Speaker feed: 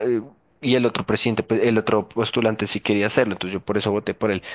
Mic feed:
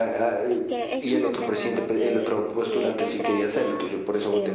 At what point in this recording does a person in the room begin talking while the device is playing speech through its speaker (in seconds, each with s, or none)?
0.5 s